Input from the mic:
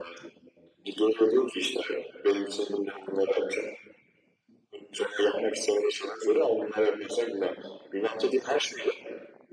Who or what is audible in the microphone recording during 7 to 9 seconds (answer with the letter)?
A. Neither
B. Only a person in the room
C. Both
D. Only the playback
D